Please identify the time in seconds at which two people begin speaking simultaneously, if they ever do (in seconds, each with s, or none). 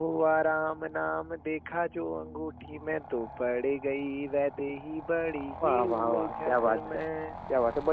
5.6 s